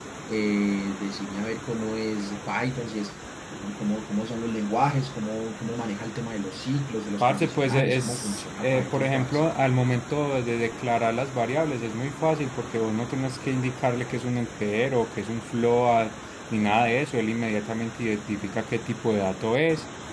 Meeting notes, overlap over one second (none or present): present